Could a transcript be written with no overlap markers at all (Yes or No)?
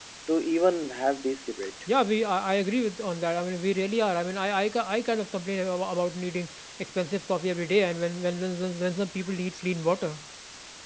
Yes